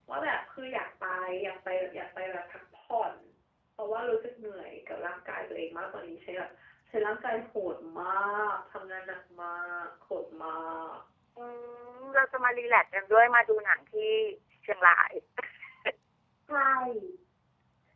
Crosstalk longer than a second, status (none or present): none